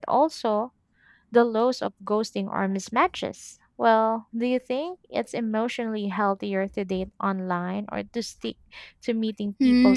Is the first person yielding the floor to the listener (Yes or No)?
Yes